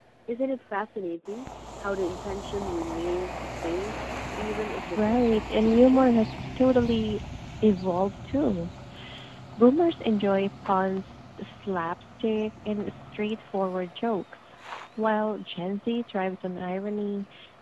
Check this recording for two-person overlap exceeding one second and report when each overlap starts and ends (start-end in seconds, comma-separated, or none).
4.9-6.3